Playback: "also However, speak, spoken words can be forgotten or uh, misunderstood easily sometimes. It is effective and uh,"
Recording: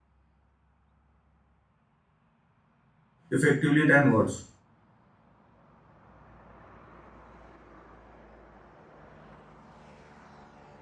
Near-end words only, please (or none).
effectively than words.